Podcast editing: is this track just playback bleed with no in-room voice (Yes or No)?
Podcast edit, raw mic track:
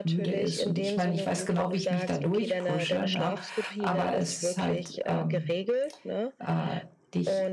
No